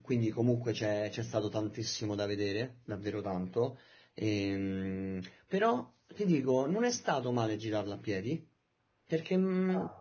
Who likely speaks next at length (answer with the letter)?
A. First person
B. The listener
A